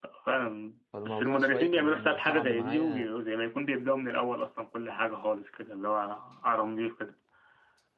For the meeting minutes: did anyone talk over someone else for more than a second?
Yes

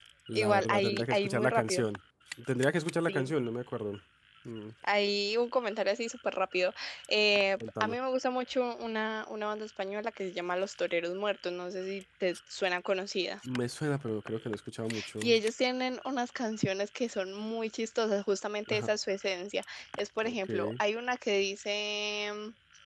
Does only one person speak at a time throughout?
No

